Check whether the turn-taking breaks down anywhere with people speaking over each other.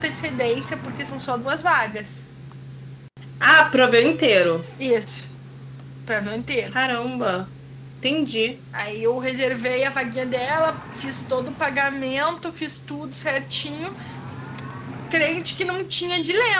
No

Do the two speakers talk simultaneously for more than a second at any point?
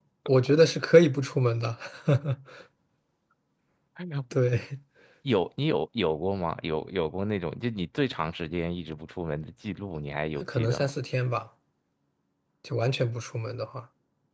No

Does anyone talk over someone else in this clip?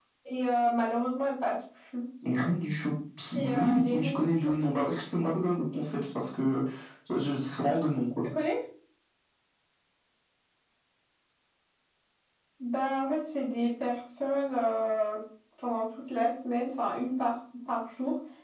Yes, from 3.4 s

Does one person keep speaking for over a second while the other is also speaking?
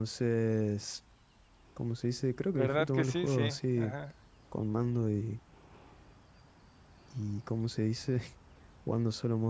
Yes, from 2.5 s

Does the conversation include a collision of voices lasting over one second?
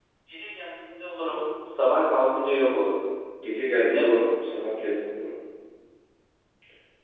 No

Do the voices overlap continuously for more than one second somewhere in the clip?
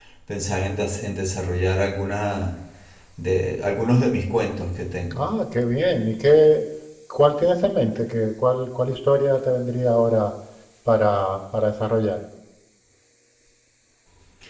No

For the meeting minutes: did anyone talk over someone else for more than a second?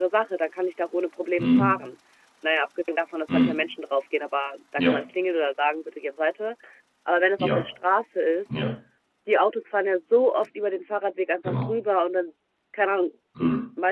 No

